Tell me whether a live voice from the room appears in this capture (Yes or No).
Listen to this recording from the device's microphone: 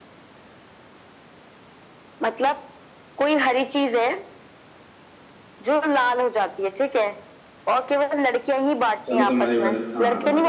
Yes